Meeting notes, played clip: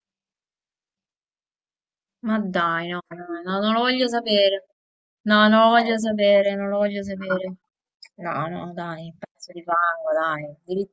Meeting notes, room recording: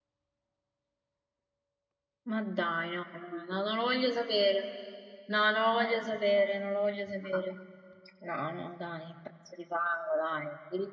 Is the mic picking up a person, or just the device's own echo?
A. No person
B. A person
A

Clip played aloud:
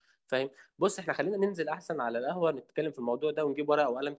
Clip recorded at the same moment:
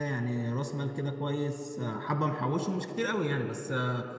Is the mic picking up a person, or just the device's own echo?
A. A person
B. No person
A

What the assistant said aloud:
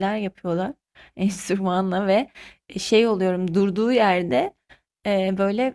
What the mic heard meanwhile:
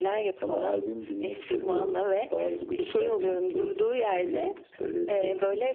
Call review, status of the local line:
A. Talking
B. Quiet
A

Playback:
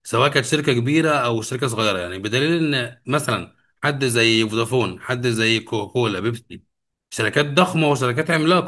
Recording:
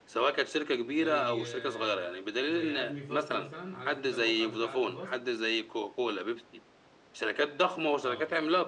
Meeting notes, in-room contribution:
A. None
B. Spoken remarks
B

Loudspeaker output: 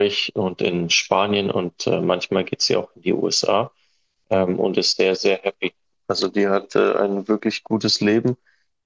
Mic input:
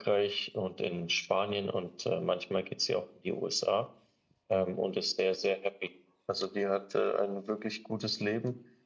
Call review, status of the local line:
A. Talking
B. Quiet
B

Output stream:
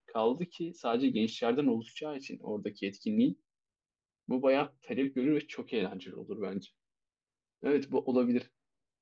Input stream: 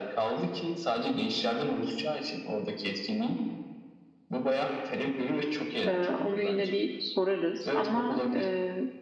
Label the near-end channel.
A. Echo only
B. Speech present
B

